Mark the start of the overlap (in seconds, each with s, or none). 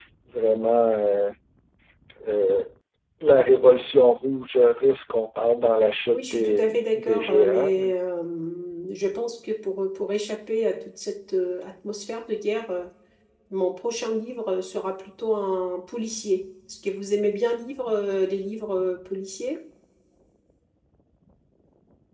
6.1 s